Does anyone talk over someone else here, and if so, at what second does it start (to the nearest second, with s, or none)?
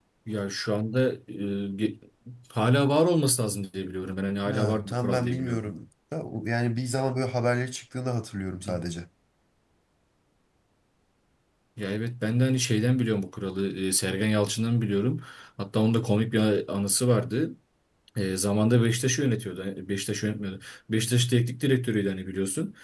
4 s